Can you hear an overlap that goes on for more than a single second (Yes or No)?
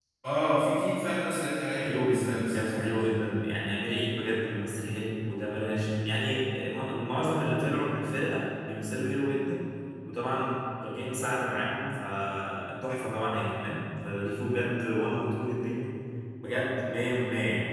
Yes